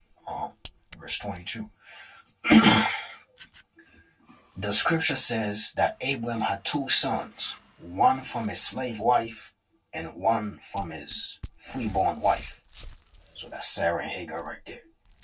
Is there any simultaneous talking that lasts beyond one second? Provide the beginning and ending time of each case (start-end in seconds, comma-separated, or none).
none